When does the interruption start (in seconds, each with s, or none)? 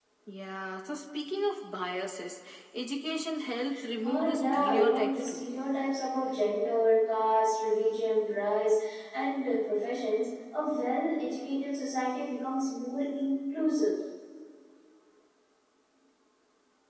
4.0 s